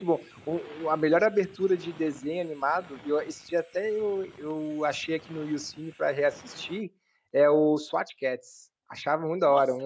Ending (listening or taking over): taking over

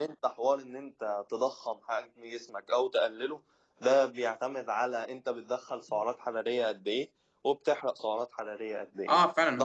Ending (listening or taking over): taking over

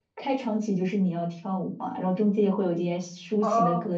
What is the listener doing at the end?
taking over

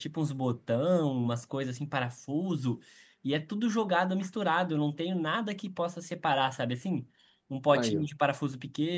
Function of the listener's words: listening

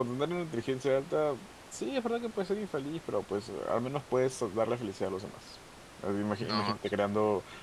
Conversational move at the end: listening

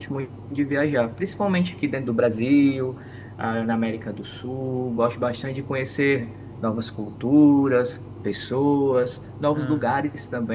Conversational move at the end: listening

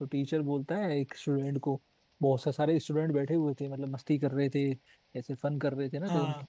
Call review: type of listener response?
listening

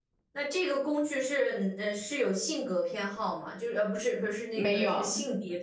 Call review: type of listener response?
listening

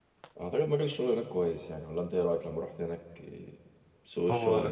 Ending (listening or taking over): taking over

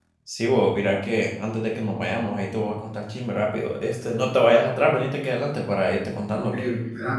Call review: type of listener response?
taking over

